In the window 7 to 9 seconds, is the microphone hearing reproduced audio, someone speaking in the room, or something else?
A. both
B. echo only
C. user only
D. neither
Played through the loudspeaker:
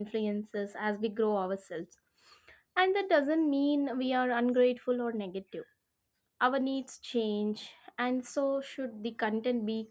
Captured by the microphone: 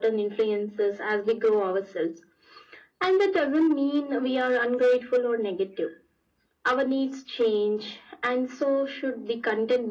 B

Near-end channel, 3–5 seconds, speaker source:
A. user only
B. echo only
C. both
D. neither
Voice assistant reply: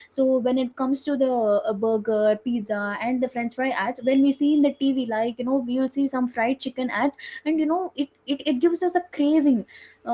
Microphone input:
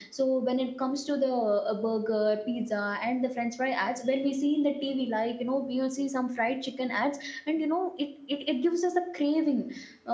B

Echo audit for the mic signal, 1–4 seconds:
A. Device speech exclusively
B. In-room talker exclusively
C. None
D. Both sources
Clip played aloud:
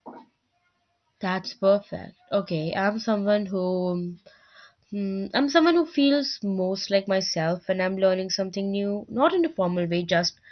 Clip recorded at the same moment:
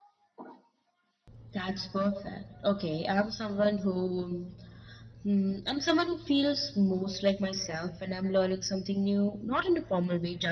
A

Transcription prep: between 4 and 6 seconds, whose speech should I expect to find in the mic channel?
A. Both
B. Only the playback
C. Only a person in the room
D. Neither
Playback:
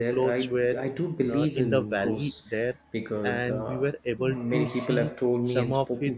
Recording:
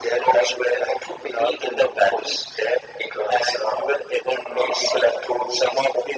B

